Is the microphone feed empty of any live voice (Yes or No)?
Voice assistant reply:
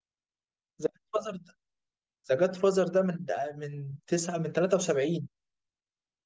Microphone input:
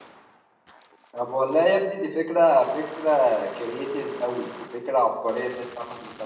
No